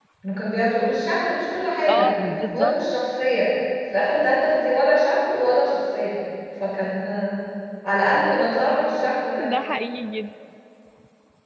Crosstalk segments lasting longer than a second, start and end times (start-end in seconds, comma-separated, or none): none